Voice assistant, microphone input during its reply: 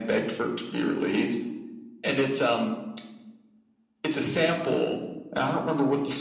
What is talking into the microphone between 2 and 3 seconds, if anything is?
echo only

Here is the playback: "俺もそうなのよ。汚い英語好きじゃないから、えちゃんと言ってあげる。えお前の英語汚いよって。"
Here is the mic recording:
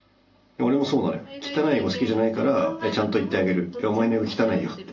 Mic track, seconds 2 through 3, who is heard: both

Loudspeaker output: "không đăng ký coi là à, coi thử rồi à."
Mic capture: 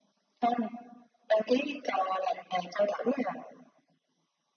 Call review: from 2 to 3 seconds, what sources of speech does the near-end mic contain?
echo only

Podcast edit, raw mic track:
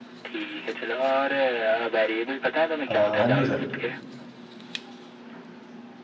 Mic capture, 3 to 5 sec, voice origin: both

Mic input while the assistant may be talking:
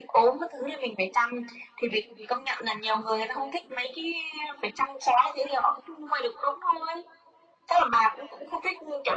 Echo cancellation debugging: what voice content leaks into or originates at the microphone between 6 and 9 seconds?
echo only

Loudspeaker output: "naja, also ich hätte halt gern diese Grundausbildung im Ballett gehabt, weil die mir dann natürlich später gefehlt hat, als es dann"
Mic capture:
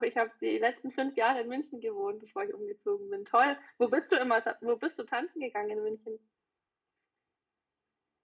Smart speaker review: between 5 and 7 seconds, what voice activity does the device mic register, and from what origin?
user only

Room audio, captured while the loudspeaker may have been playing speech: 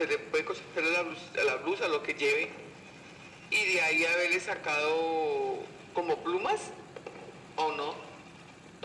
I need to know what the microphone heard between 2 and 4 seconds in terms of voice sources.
echo only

